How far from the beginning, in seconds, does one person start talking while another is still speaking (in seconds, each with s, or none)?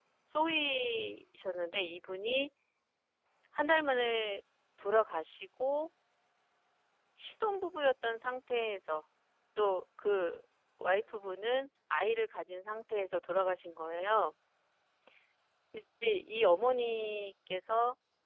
none